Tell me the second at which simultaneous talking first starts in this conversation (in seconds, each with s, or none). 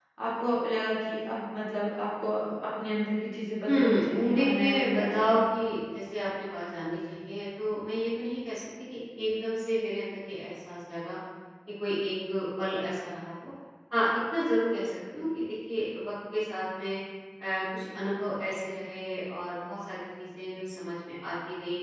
3.7 s